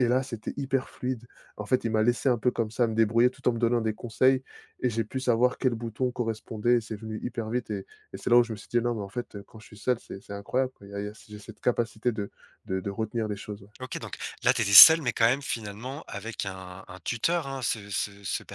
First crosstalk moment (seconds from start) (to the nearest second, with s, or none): none